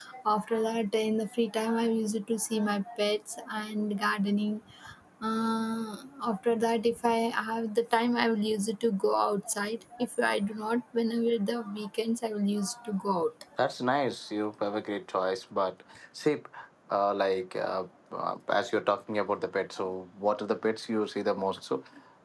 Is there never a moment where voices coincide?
Yes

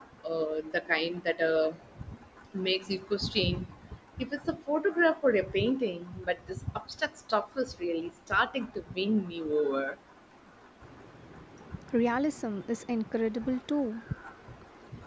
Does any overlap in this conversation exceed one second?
No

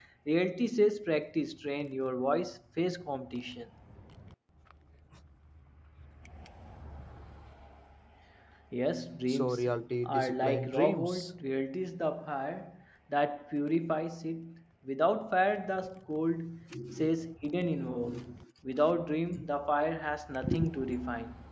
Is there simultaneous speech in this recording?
Yes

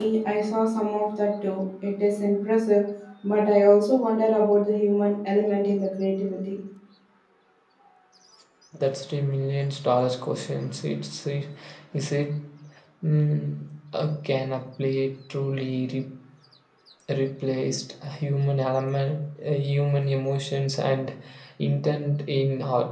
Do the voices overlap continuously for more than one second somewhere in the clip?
No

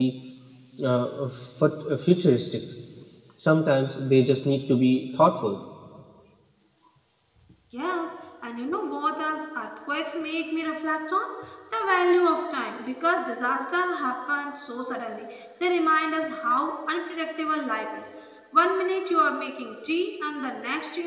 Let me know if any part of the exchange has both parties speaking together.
No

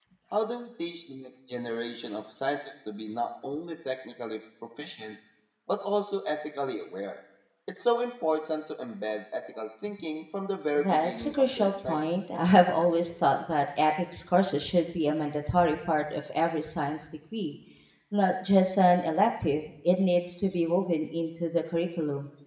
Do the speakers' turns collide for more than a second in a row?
Yes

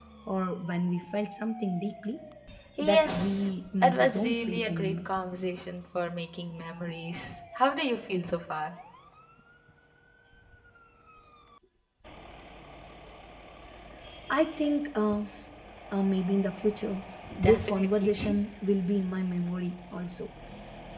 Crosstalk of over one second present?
Yes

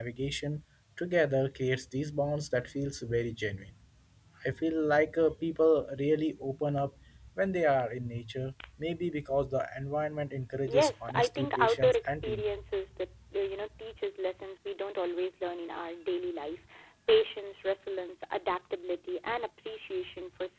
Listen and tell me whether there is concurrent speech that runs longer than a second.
Yes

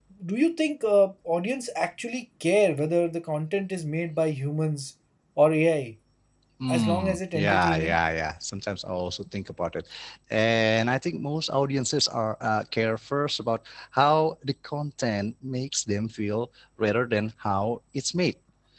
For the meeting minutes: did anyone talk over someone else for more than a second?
Yes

